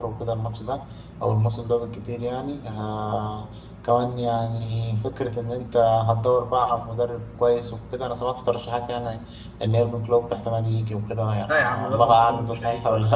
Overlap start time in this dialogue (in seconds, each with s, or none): 11.5 s